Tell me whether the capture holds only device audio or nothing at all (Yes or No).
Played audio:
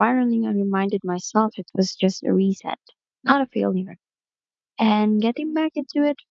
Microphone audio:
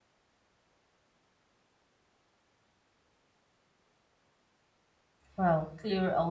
No